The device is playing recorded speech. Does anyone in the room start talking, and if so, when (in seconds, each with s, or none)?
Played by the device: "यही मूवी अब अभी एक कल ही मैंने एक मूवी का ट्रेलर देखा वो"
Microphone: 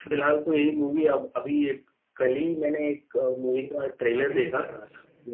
3.6 s